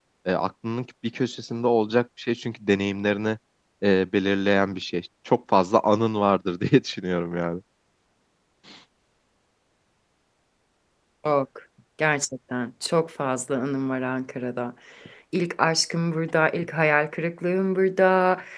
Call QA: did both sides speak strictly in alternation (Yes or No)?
Yes